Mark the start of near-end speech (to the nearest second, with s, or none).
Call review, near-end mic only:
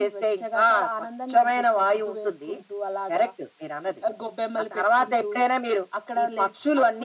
none